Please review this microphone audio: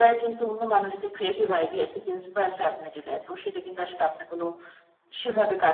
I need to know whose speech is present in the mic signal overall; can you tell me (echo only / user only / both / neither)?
echo only